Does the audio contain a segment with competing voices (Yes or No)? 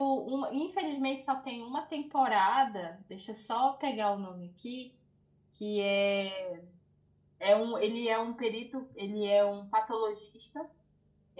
No